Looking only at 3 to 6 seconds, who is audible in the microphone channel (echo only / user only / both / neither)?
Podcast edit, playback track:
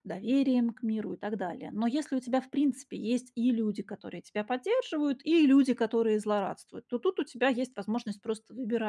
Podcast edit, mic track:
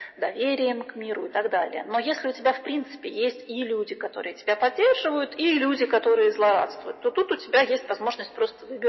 echo only